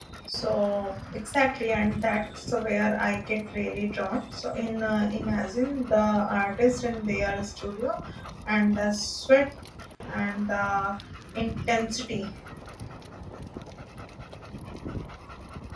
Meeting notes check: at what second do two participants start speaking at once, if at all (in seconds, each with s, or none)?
none